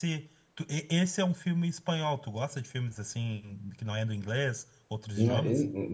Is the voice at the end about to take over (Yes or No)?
Yes